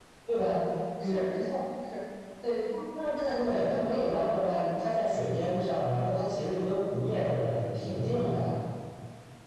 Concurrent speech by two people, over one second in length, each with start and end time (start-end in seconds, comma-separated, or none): 3.3-4.7